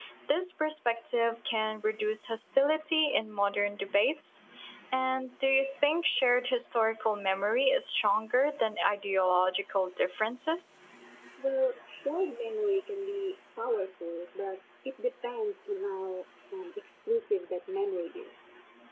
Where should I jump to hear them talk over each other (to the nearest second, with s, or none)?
none